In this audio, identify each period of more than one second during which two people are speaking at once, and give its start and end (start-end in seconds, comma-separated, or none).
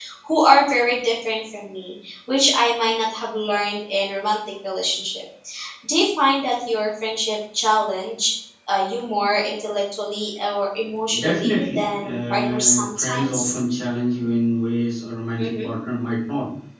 11.2-13.5